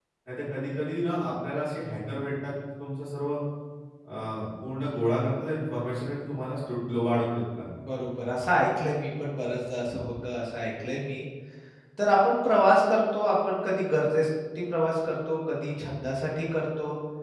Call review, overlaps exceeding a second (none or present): none